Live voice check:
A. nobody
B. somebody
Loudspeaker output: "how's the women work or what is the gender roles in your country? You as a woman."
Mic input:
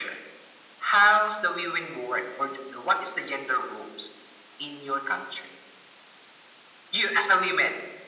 A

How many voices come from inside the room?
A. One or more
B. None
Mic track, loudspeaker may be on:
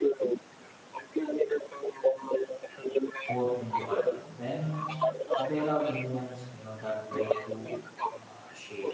A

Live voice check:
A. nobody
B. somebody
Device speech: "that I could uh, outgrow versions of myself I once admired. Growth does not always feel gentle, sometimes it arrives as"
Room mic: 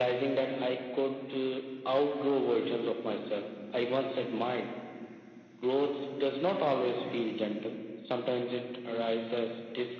A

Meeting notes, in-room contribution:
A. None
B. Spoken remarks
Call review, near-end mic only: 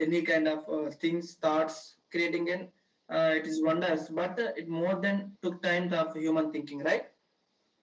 A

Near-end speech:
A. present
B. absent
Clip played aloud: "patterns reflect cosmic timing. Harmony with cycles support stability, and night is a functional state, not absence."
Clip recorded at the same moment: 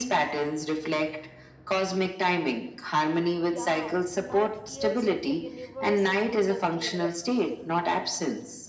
A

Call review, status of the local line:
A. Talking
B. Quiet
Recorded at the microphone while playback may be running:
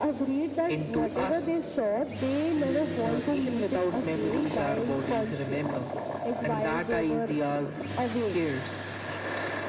A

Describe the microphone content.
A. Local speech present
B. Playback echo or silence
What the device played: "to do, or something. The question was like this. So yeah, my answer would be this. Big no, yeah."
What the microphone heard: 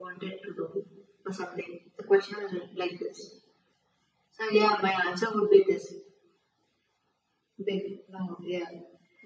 B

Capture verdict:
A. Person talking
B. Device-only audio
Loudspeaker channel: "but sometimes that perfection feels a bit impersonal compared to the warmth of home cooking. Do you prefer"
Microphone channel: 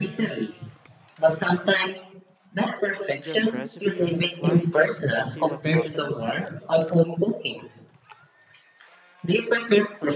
A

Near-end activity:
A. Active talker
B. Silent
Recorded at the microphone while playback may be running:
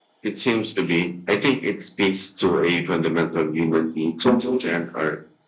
B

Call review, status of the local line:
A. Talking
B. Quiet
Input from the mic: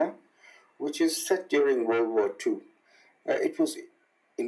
B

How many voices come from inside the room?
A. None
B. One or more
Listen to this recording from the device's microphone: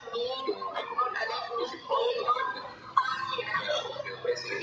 A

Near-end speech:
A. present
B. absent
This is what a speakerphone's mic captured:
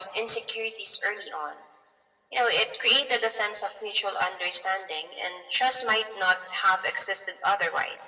B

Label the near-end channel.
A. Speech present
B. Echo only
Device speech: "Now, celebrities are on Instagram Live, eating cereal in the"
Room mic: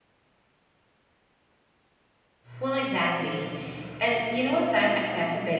A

